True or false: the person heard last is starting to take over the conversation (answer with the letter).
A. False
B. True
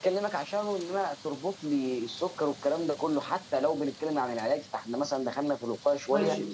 B